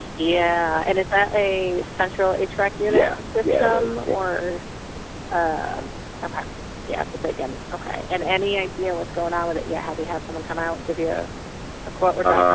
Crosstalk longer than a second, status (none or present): present